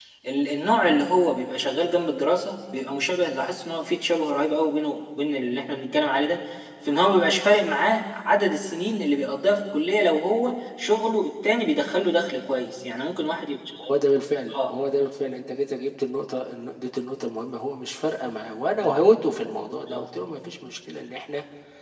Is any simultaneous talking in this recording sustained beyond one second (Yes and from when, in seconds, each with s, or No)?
No